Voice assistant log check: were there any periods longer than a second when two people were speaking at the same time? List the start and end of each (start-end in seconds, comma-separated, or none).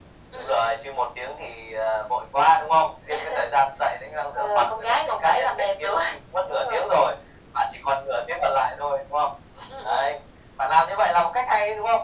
4.3-6.0